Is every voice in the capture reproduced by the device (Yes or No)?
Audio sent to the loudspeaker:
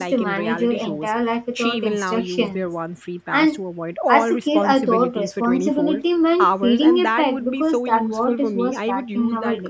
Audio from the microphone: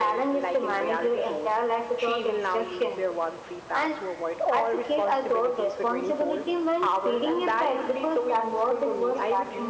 Yes